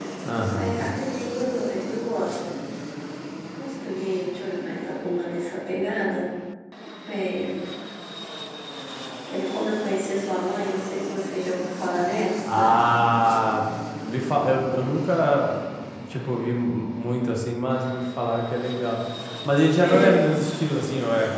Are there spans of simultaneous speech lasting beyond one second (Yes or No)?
No